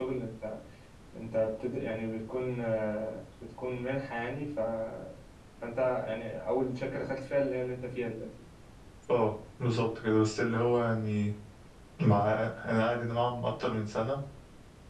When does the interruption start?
none

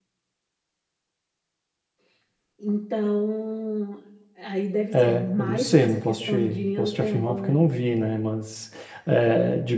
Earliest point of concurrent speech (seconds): 4.9 s

